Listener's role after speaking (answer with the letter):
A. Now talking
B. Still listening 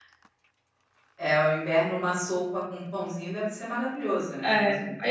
A